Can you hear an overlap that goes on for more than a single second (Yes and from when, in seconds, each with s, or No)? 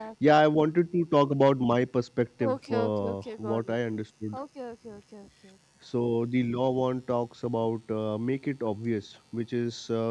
Yes, from 2.4 s